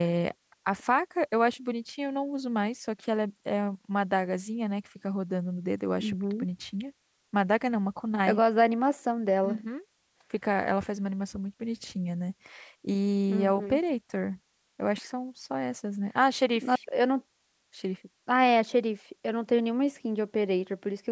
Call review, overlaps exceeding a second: none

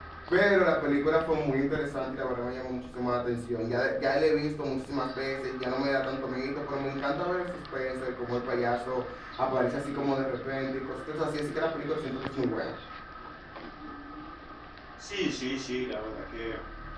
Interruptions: none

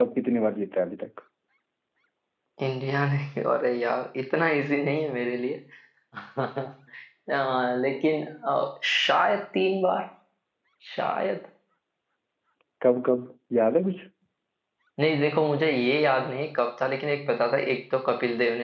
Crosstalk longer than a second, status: none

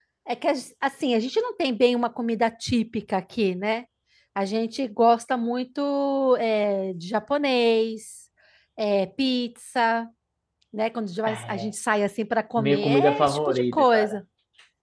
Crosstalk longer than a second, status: present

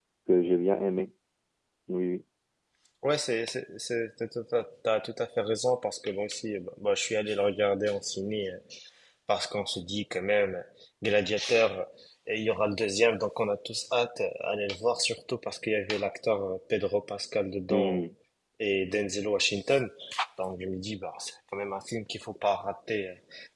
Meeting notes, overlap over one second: none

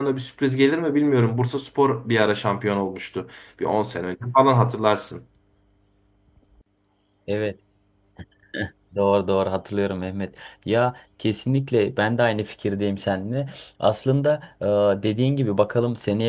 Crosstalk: none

